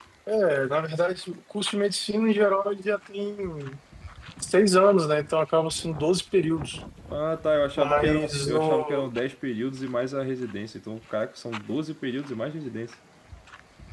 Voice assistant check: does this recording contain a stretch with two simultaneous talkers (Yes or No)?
Yes